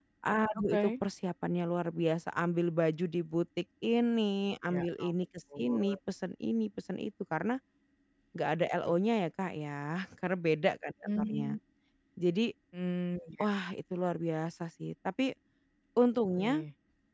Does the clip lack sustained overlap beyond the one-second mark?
Yes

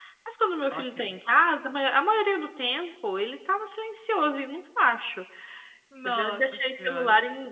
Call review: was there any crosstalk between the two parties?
Yes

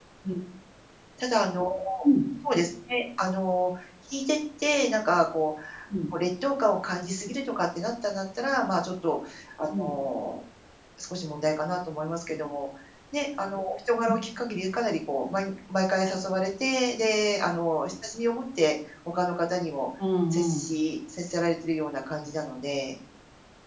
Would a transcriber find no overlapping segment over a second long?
Yes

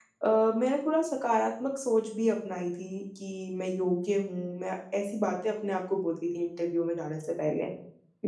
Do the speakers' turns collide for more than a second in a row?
No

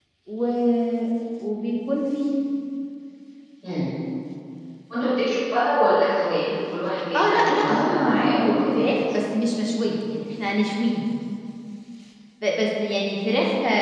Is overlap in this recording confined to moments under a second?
No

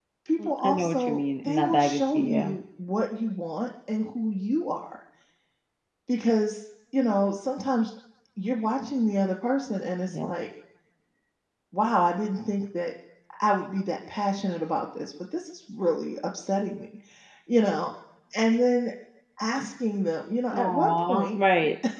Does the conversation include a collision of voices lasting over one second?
Yes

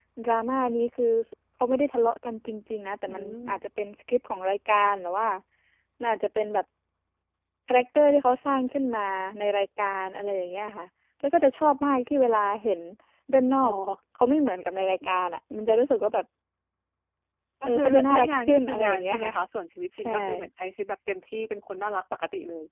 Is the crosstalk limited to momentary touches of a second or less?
No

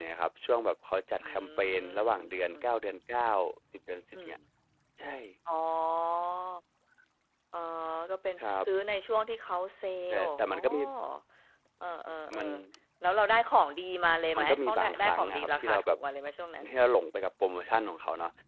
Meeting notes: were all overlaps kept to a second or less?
No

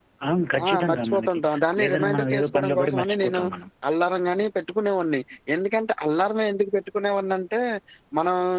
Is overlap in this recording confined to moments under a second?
No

